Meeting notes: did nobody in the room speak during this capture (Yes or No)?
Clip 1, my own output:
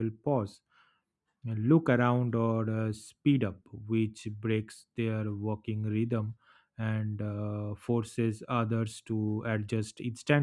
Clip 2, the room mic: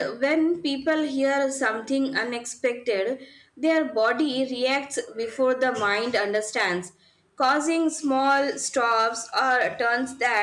No